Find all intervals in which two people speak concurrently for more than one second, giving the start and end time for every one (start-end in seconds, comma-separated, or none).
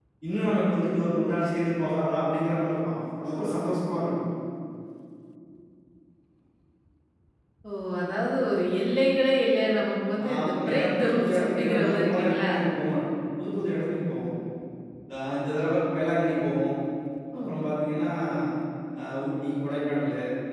10.3-12.5